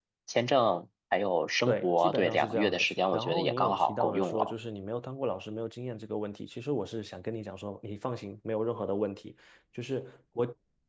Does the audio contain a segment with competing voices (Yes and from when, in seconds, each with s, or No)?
Yes, from 1.7 s